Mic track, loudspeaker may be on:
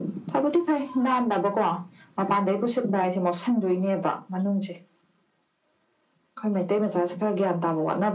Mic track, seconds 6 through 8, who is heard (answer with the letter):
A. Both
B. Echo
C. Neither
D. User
B